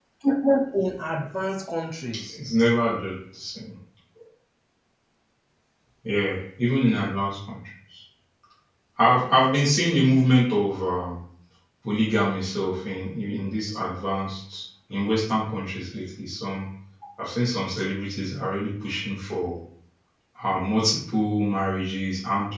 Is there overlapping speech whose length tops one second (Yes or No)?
No